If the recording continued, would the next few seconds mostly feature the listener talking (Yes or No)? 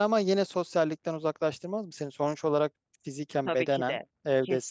Yes